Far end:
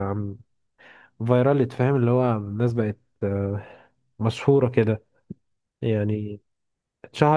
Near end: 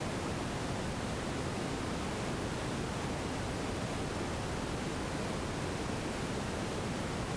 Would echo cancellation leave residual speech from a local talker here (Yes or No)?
No